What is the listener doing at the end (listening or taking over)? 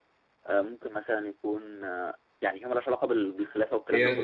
taking over